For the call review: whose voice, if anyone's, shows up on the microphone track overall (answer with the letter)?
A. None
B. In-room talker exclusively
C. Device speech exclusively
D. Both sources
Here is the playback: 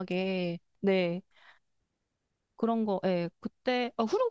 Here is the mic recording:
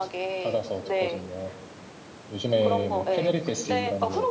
D